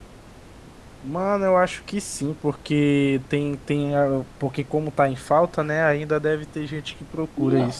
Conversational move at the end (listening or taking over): taking over